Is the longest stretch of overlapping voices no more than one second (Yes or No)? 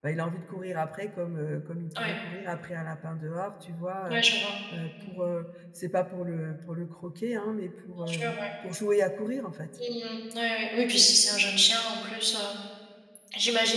Yes